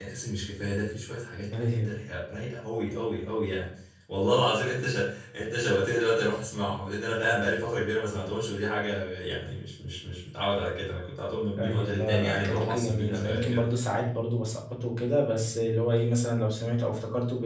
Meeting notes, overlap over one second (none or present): present